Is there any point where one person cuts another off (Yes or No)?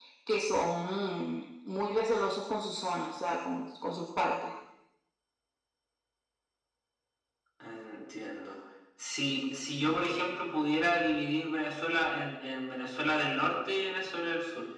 No